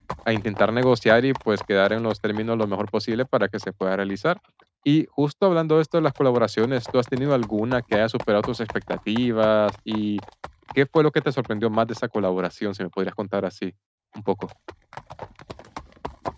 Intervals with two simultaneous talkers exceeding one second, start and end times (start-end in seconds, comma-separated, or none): none